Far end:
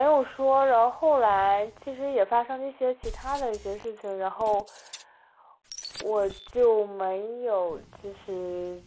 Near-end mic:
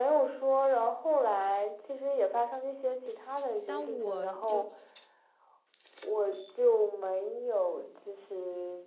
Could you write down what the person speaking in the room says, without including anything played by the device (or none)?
当我就